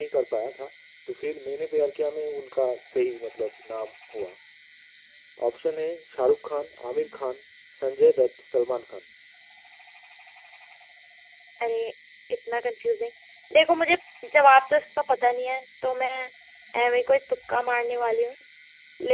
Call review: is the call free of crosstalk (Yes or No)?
Yes